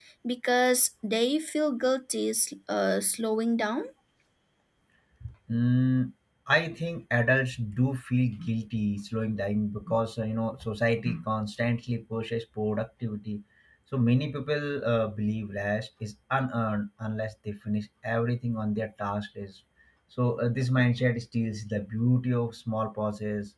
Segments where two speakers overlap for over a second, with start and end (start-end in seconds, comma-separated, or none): none